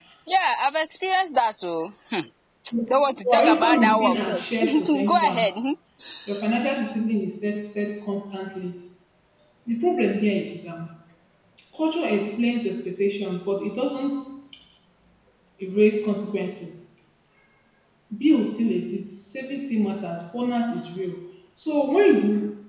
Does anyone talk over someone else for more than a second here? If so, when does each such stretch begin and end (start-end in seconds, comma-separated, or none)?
3.2-5.5